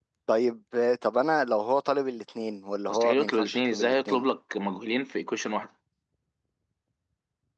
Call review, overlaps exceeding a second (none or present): present